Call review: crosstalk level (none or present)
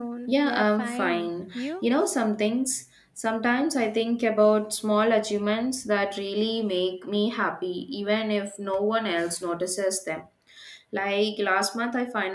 present